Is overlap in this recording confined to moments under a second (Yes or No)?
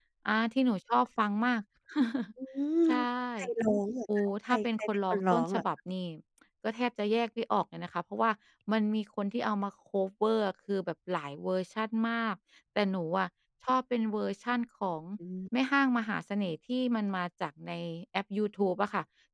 No